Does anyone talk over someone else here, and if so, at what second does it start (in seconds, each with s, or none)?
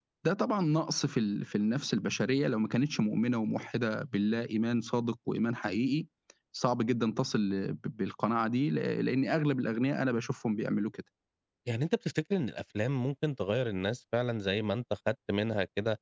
none